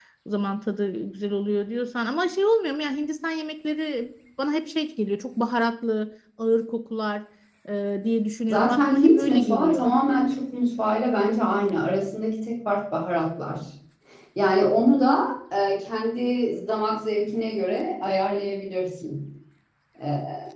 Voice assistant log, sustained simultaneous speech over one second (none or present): present